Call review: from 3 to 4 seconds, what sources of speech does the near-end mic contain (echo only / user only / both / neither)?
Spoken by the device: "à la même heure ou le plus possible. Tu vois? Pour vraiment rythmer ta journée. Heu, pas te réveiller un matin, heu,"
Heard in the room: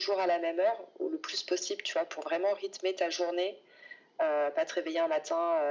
echo only